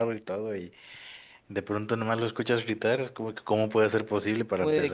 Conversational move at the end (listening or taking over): taking over